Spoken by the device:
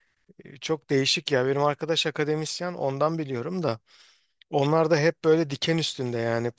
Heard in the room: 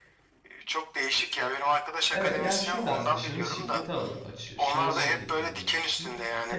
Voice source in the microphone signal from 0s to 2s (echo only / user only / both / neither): echo only